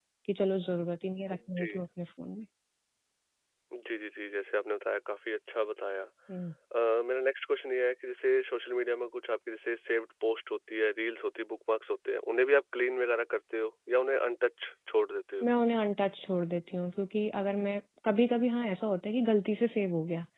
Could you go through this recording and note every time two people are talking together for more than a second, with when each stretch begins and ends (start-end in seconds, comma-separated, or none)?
none